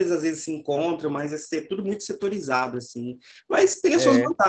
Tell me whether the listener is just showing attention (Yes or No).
Yes